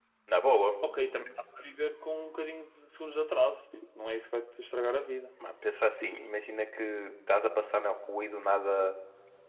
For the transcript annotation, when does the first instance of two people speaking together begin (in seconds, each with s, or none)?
none